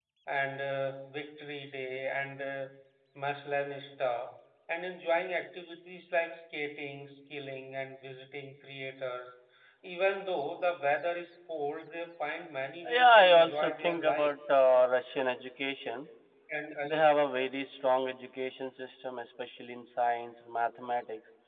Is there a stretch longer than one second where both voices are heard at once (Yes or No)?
Yes